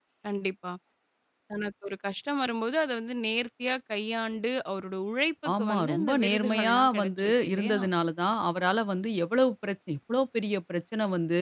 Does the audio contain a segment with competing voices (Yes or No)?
Yes